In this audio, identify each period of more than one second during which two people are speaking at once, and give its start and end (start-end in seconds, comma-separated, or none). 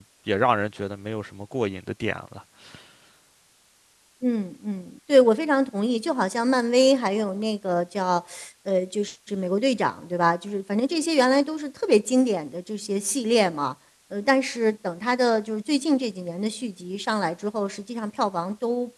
none